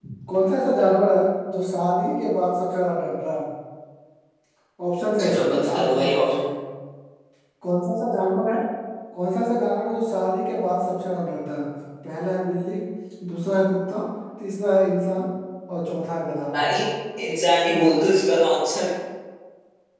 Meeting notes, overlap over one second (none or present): present